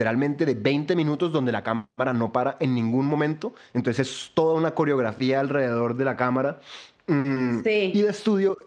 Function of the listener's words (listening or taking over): listening